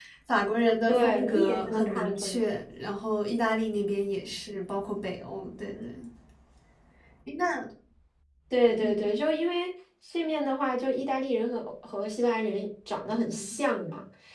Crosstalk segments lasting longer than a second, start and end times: 0.9-2.4

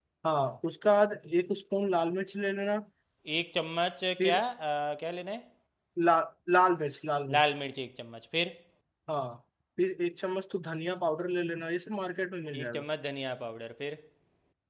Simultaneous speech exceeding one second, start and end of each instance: none

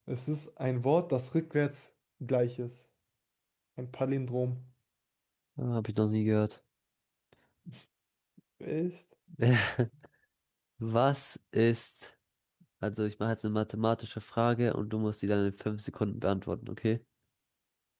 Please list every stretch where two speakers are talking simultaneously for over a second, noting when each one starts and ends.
none

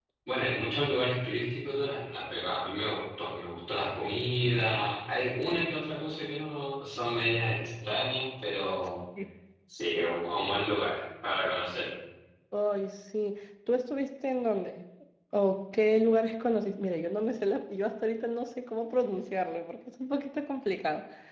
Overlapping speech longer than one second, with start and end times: none

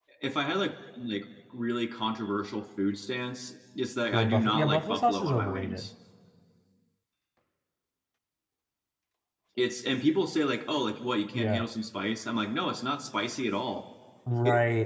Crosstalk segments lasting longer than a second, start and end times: 4.1-5.9

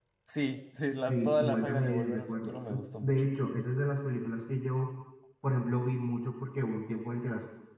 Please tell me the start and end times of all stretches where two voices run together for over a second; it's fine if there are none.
1.1-2.5

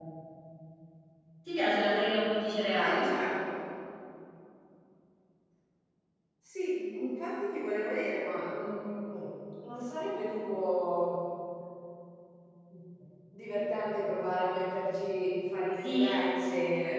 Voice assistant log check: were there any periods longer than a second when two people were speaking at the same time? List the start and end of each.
none

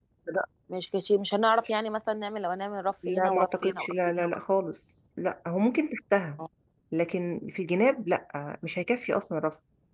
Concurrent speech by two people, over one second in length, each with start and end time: 3.1-4.4

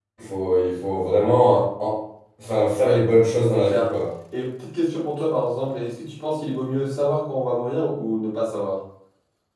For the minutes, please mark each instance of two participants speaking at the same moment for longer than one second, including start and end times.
none

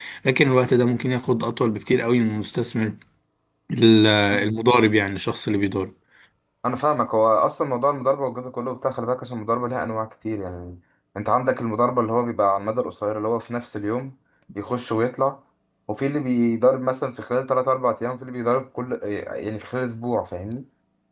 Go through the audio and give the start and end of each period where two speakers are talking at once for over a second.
none

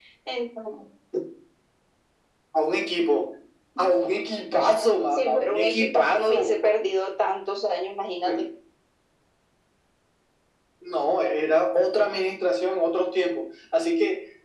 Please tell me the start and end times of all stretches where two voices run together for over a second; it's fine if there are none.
5.1-6.5

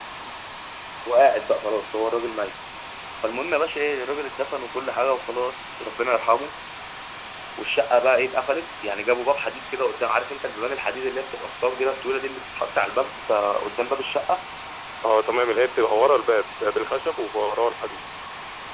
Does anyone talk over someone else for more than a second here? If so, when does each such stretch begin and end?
none

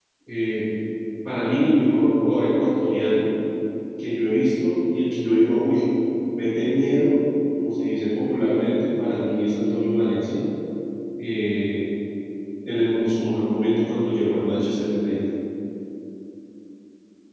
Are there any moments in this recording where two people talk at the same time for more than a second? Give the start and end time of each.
none

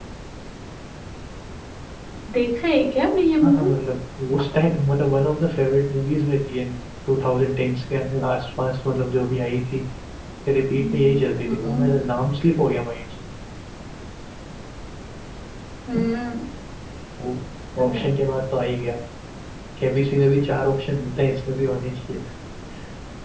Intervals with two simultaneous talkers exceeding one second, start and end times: 10.8-12.0

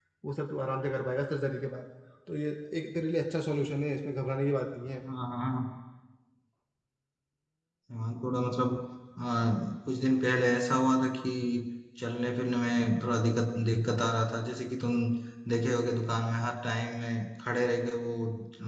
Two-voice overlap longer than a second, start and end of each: none

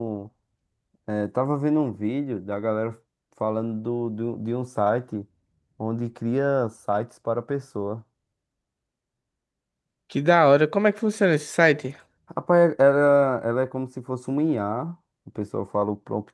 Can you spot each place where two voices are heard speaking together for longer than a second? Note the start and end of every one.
none

